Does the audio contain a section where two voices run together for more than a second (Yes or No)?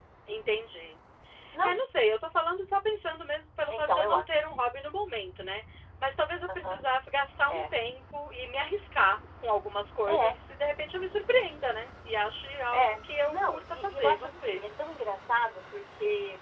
Yes